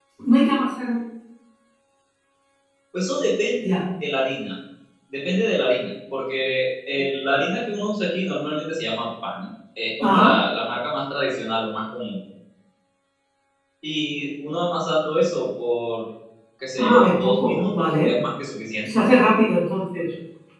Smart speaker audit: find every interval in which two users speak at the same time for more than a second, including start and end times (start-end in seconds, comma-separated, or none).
16.8-18.1